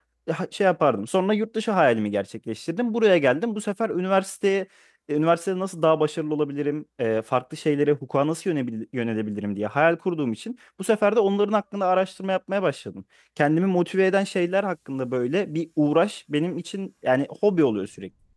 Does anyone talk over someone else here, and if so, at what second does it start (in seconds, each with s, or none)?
none